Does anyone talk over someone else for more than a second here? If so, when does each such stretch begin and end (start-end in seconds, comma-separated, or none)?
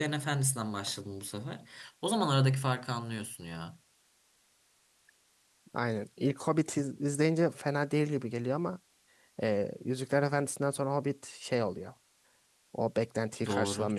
none